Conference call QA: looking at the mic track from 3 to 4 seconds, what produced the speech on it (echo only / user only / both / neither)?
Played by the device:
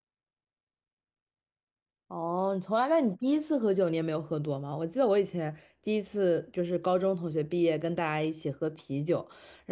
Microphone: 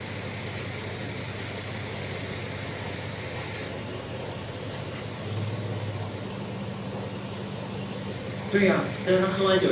neither